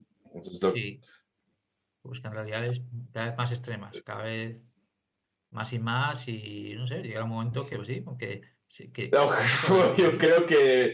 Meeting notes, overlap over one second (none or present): present